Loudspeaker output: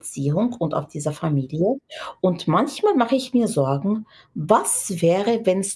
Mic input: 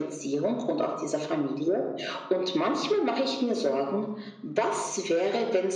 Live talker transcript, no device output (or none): none